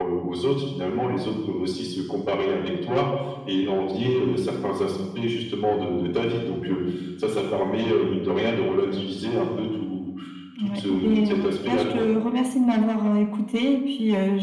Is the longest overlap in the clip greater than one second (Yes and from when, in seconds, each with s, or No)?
Yes, from 10.6 s